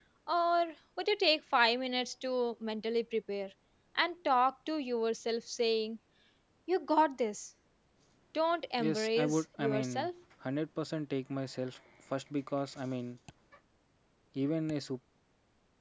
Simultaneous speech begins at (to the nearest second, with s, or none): 9 s